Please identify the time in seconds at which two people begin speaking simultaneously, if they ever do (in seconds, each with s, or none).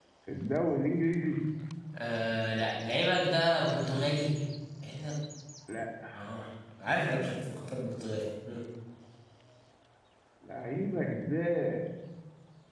none